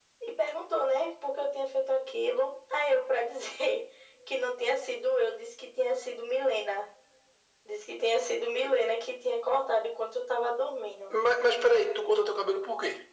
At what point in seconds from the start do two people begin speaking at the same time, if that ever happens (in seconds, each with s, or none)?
none